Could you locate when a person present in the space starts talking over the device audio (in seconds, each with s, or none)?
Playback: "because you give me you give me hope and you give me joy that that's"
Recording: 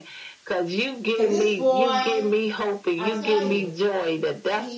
1.1 s